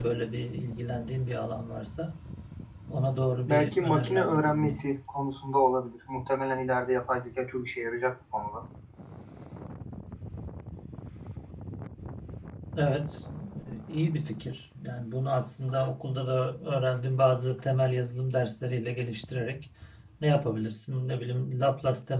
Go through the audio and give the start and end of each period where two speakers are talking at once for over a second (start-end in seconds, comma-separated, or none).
3.5-4.8